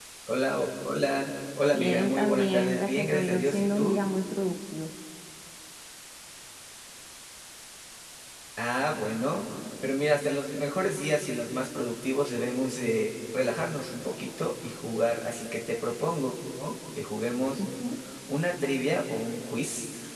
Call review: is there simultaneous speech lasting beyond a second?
Yes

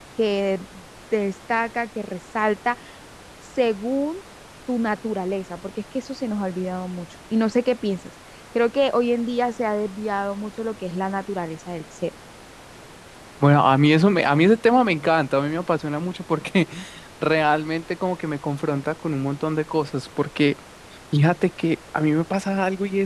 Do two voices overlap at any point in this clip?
No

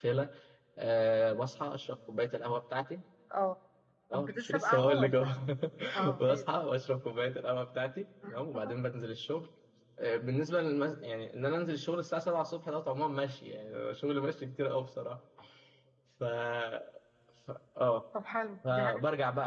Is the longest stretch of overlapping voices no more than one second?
No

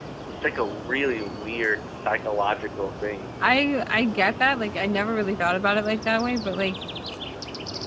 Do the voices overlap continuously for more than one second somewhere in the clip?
No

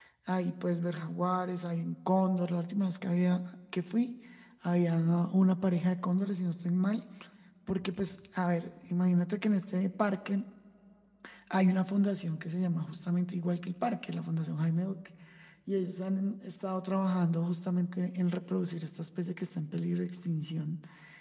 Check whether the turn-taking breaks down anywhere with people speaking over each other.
No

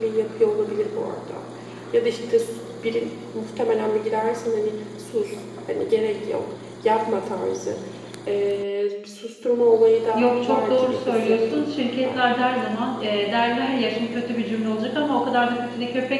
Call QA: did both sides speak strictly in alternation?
No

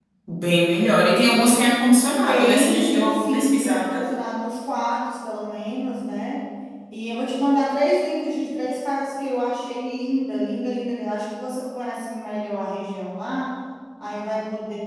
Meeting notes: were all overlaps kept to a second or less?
No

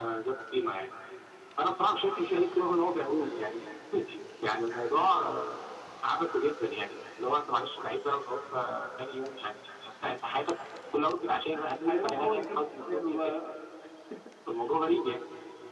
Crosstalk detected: Yes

